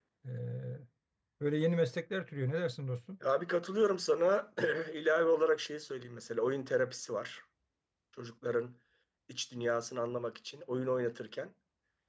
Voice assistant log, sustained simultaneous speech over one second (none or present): none